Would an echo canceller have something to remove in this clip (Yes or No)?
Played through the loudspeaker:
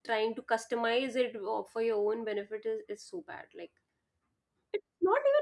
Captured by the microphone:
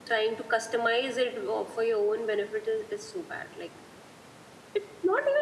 Yes